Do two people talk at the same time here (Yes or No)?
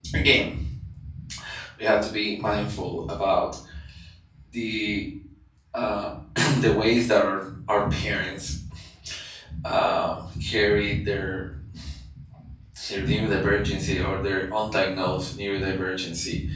No